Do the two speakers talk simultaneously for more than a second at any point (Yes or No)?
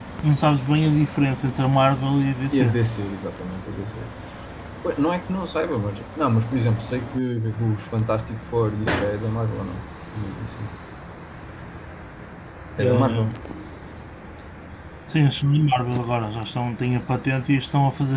No